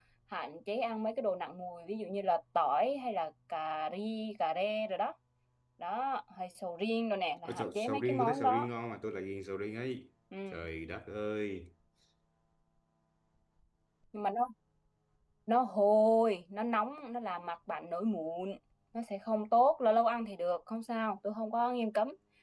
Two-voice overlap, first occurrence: 7.5 s

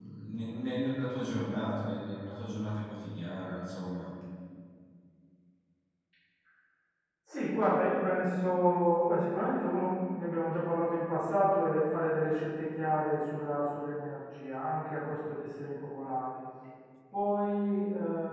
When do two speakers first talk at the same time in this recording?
none

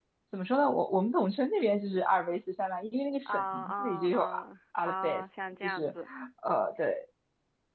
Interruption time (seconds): 3.2 s

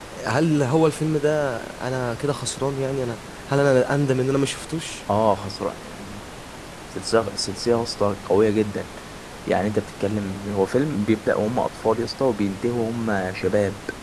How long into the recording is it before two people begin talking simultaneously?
none

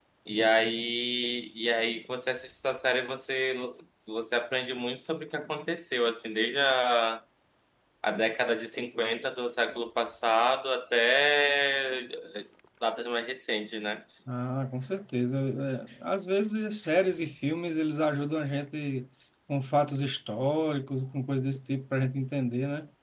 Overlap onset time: none

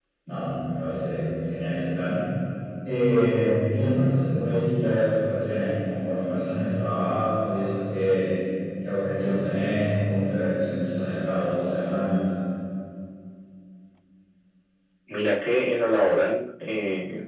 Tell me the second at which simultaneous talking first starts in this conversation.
none

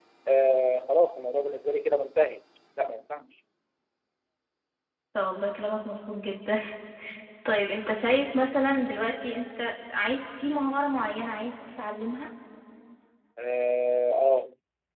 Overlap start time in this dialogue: none

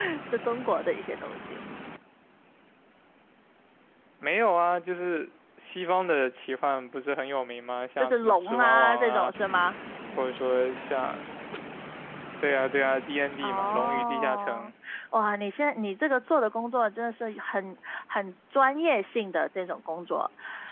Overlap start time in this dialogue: 8.0 s

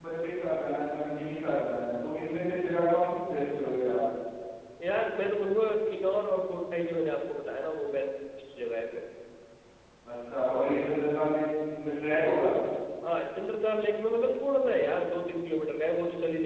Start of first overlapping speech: none

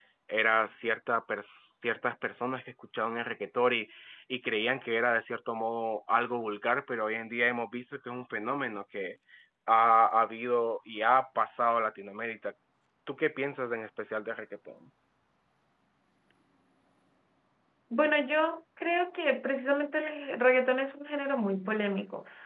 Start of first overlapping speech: none

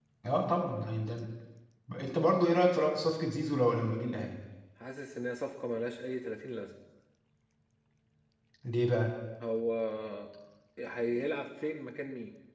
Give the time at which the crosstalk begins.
none

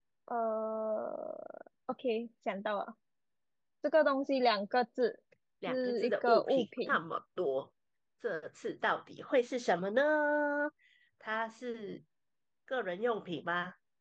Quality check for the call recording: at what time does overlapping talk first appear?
5.7 s

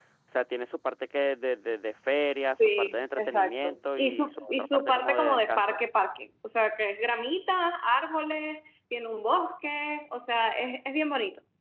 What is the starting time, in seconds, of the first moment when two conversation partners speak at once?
2.6 s

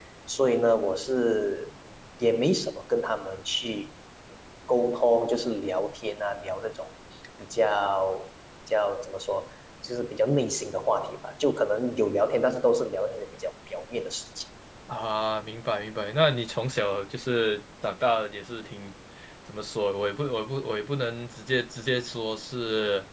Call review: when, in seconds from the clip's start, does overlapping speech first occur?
none

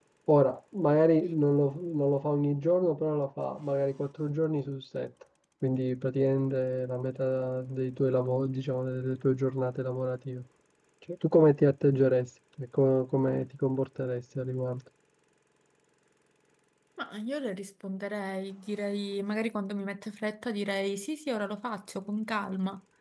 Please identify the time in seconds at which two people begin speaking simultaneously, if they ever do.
none

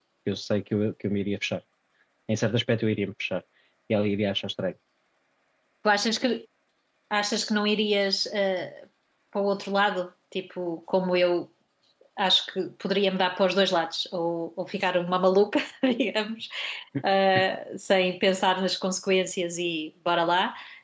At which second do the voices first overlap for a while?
none

